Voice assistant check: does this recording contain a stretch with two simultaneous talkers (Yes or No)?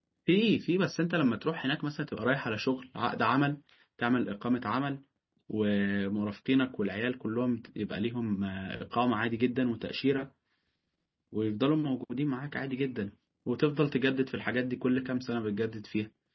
No